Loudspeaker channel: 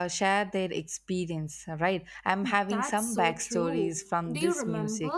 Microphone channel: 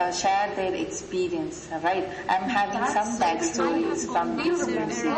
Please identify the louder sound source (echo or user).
echo